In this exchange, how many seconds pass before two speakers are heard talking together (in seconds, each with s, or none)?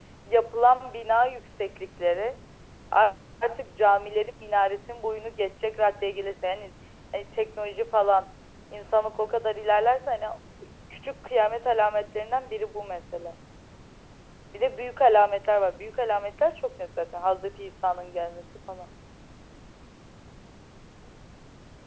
none